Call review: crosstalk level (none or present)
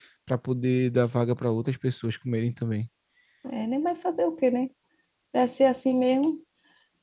none